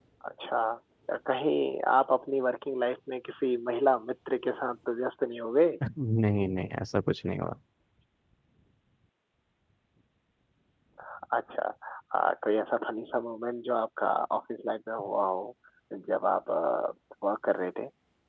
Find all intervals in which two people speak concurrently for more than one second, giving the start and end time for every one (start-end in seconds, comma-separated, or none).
none